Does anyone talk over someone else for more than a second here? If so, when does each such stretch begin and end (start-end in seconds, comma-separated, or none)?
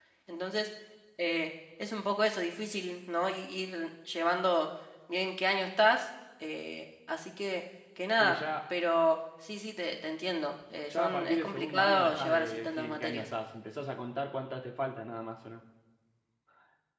11.0-13.2